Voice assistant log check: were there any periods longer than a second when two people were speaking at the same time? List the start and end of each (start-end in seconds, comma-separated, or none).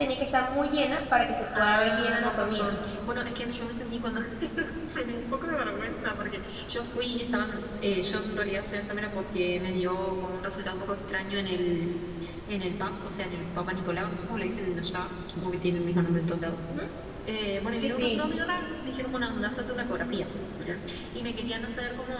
1.5-2.8